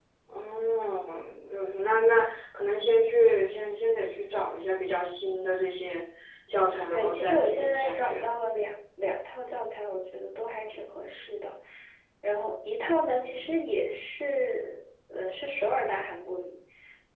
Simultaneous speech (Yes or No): Yes